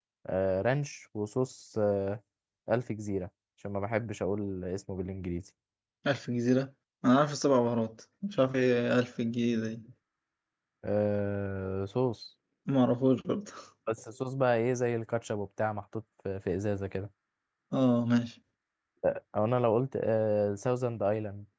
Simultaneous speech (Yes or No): No